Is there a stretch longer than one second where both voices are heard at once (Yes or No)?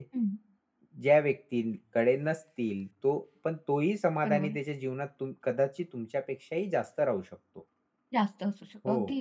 No